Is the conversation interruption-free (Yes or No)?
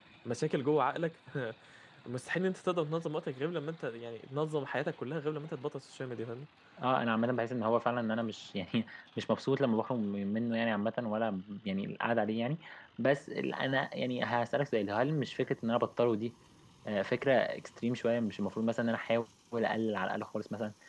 Yes